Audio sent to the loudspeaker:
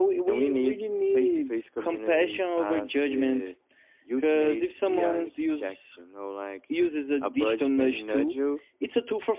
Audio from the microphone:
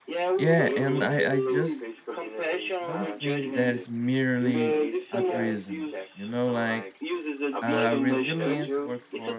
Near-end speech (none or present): present